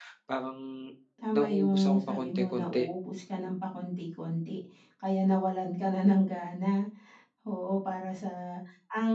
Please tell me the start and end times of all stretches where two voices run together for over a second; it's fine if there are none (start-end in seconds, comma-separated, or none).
1.3-2.9